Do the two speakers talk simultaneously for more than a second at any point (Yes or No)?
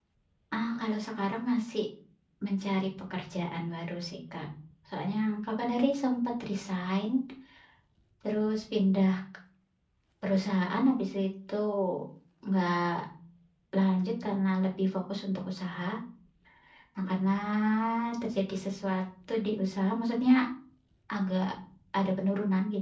No